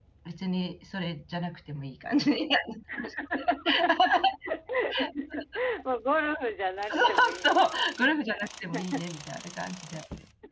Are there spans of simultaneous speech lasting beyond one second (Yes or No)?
Yes